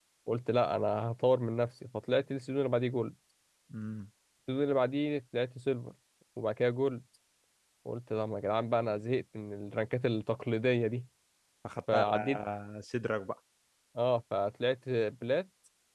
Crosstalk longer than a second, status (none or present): none